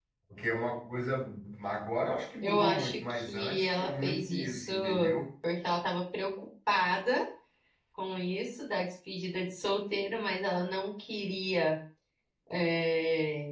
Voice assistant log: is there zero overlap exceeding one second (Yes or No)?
No